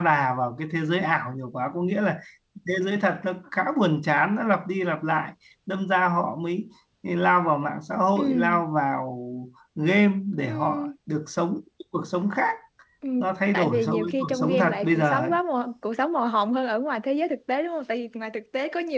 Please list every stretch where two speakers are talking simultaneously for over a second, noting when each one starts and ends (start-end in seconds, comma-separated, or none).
13.5-15.3